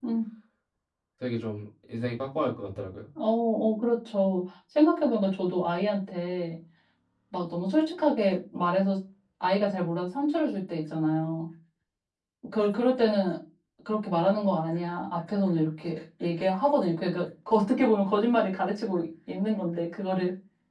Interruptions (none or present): none